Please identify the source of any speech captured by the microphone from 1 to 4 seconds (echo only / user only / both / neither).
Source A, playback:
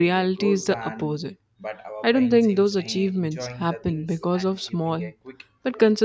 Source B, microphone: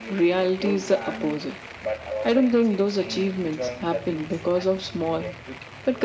echo only